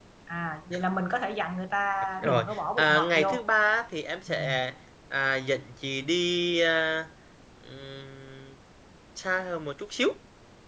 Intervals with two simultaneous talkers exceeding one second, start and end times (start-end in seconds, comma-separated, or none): 2.2-3.4